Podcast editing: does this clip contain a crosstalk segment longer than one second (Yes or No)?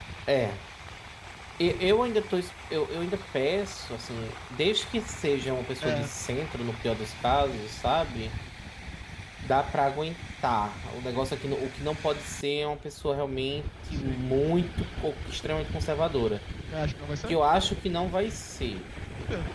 No